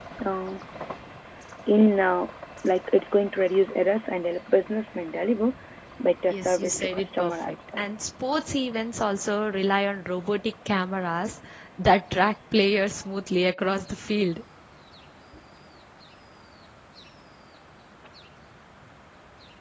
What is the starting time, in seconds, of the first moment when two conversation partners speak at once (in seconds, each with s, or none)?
6.3 s